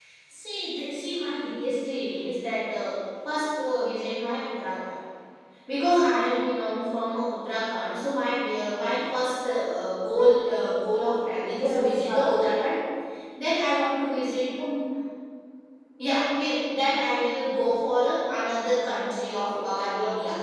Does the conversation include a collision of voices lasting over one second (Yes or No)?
Yes